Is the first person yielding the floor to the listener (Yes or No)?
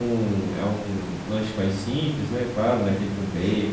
No